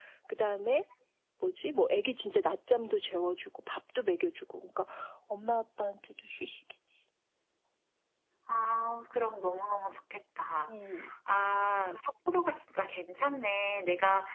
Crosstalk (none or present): none